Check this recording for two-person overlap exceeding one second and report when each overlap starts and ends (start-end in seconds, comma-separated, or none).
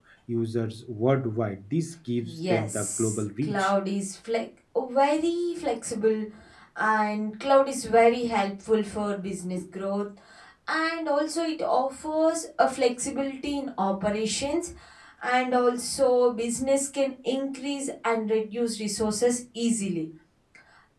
2.2-3.7